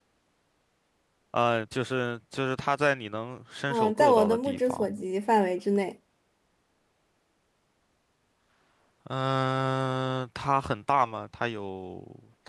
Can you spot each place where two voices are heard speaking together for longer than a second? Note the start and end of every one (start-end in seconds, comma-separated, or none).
3.7-4.9